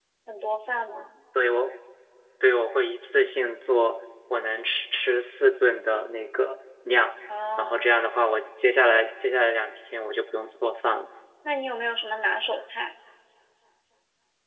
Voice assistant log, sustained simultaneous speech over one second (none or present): none